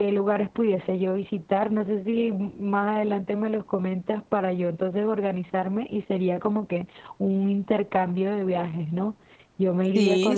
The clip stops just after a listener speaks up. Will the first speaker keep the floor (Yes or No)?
Yes